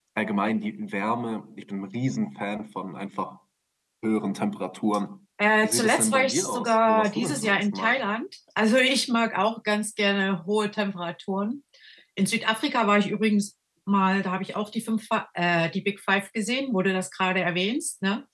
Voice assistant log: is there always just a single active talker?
No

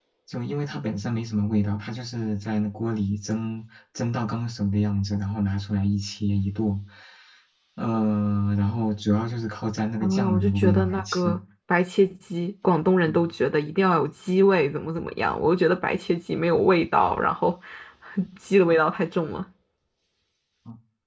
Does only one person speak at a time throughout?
No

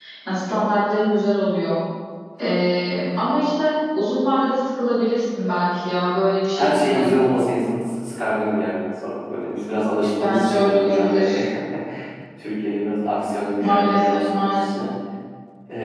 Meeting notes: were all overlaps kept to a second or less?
No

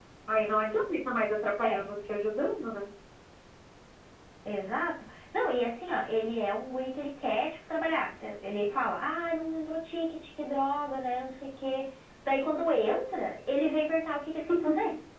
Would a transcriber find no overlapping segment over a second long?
Yes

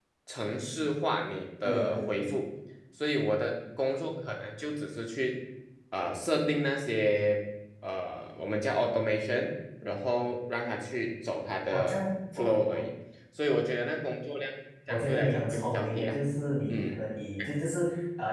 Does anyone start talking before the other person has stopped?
Yes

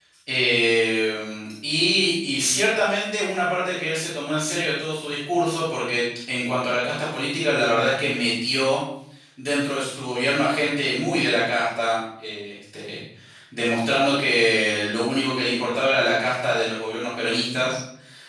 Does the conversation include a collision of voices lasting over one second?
No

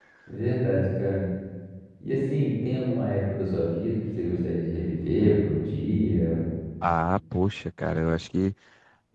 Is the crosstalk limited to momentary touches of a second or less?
Yes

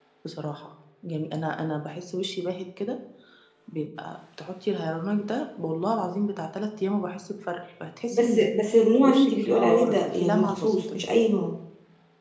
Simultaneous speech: Yes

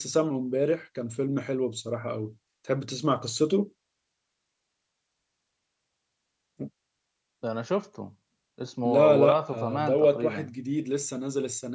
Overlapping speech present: Yes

